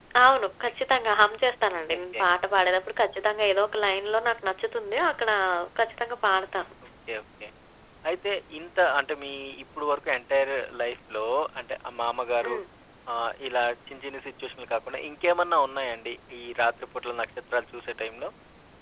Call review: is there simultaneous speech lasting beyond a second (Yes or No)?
No